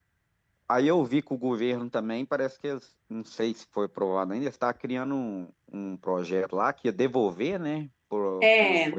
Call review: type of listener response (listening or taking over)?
taking over